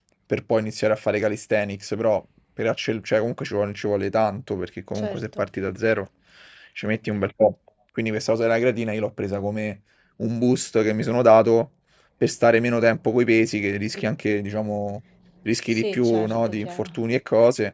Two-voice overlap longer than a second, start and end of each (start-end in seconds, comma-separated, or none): 15.7-17.0